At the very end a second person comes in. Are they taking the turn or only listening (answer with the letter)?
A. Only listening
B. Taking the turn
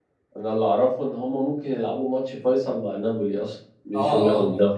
B